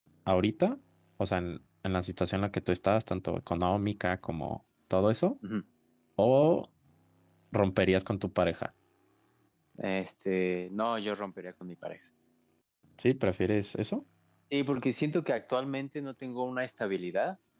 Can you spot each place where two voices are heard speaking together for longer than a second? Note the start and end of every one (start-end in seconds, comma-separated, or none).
none